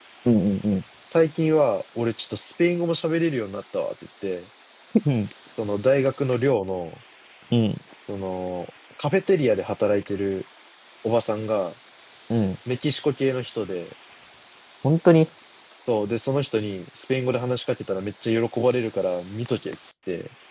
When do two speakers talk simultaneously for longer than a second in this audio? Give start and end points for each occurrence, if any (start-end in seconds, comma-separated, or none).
none